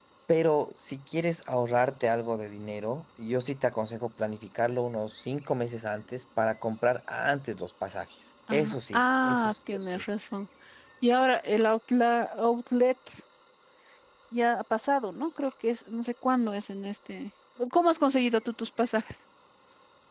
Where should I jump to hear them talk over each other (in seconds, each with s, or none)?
8.5 s